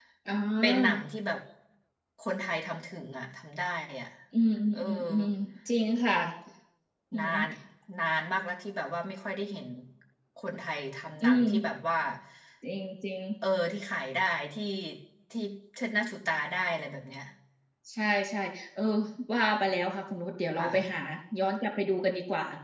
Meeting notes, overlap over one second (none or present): none